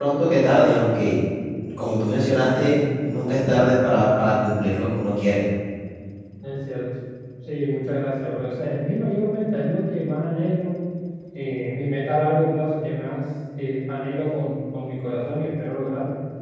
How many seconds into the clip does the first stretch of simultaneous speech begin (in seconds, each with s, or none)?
none